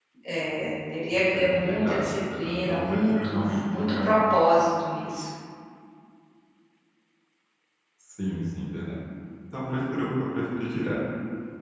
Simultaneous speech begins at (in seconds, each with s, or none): 1.3 s